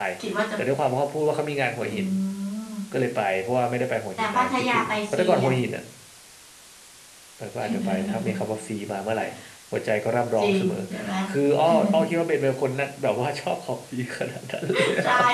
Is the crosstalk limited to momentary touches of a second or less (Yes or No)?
No